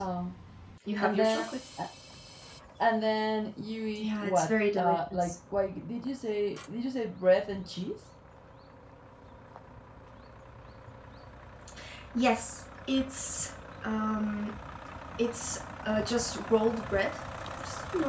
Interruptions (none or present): present